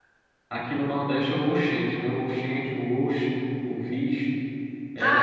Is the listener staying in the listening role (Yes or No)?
No